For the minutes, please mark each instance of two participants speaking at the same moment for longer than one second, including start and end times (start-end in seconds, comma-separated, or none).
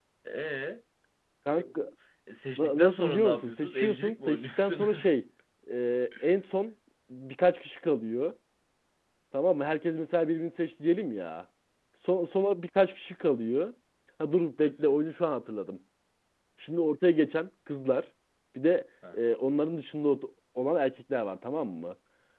2.6-5.1